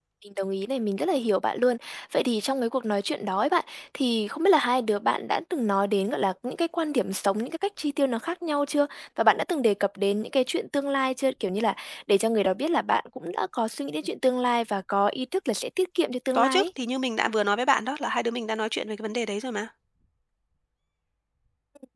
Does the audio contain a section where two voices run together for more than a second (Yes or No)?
No